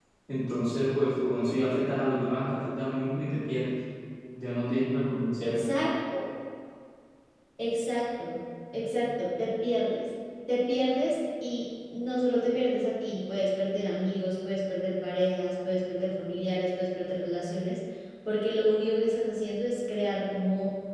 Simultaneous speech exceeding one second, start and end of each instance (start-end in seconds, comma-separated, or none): none